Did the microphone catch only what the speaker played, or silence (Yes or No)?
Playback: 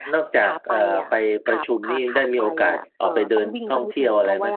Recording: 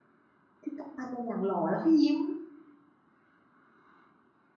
No